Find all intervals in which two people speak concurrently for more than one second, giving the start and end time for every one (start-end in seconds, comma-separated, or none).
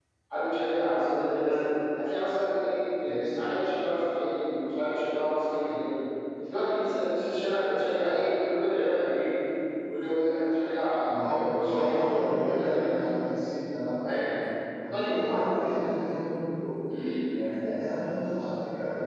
11.1-12.9